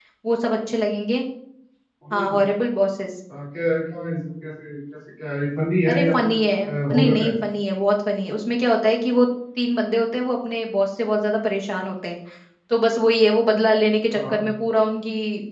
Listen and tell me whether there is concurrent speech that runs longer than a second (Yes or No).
No